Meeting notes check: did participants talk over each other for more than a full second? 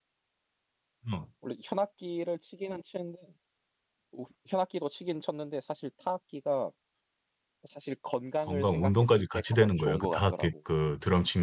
Yes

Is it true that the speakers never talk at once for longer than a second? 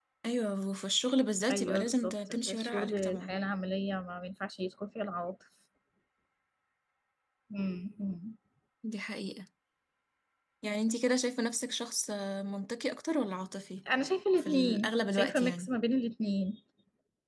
No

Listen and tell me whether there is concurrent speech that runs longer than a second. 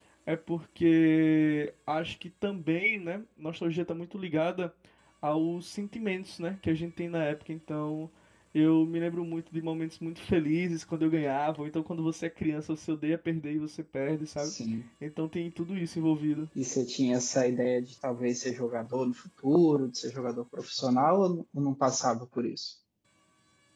No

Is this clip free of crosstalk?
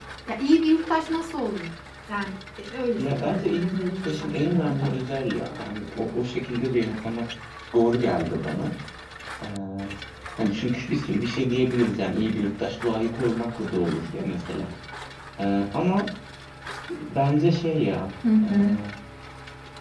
No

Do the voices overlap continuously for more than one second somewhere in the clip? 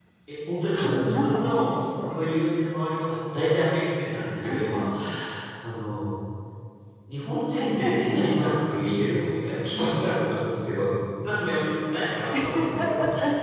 Yes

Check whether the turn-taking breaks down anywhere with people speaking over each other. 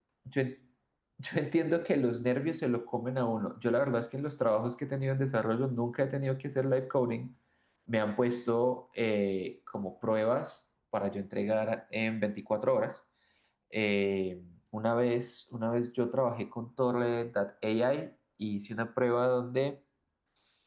No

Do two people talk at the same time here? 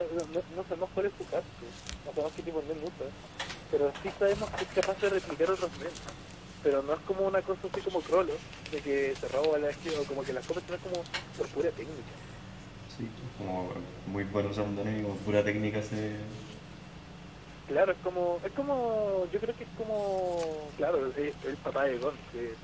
No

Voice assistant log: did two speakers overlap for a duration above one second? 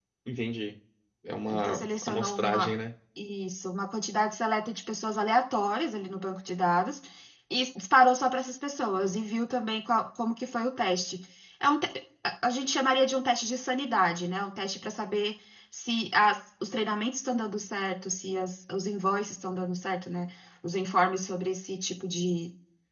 Yes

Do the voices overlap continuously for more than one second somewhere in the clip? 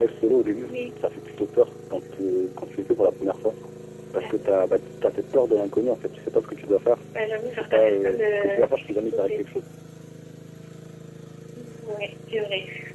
Yes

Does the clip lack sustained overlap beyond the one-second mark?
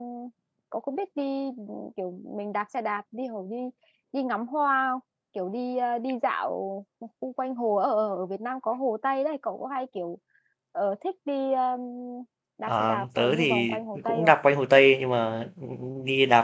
No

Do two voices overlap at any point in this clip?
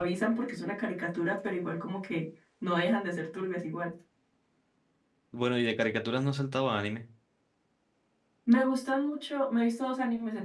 No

